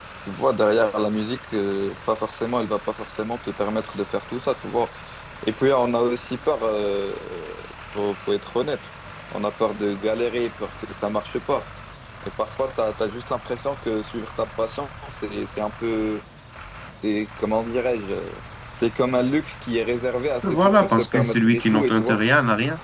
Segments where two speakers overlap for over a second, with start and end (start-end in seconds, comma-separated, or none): 20.4-22.2